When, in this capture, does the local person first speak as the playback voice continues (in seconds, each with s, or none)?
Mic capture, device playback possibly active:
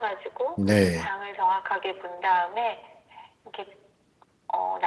0.6 s